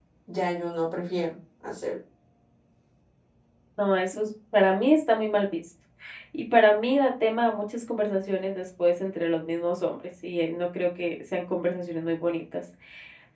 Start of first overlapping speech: none

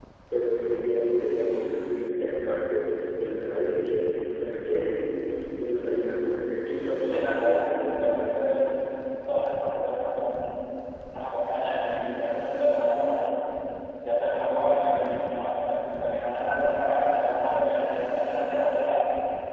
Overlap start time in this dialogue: 7 s

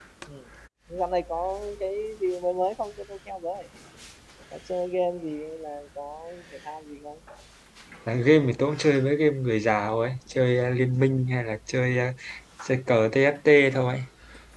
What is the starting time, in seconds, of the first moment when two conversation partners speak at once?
none

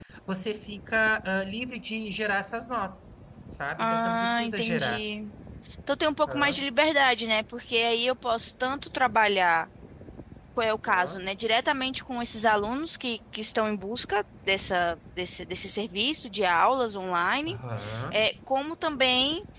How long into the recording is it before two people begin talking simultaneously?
4 s

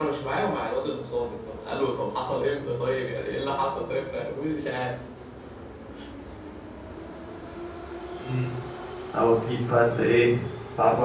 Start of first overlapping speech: none

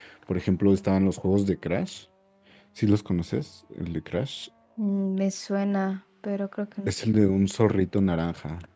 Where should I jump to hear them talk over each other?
none

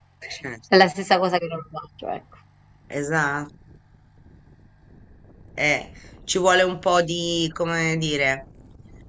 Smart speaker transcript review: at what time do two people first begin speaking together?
none

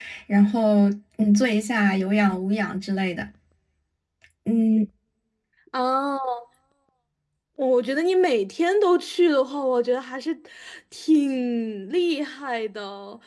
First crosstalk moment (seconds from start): none

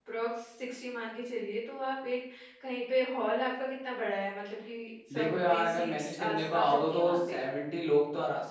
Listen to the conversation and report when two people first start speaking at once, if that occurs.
5 s

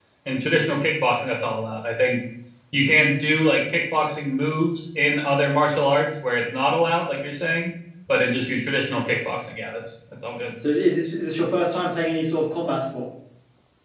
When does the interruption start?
none

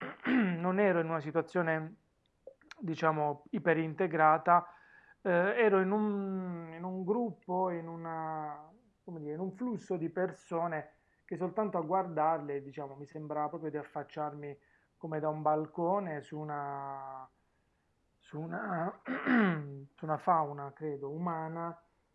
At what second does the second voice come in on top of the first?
none

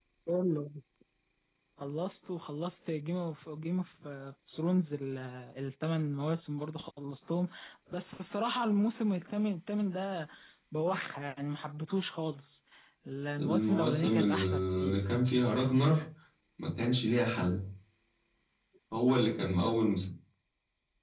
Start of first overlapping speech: 13 s

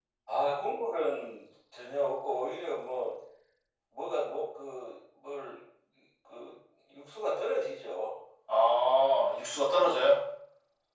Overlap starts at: none

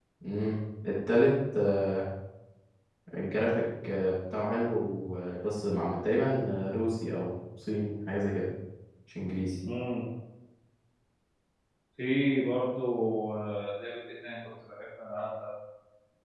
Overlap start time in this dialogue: none

